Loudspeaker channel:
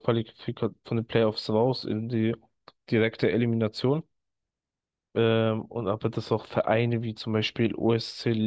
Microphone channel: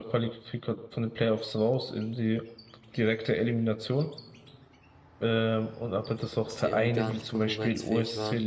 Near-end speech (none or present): present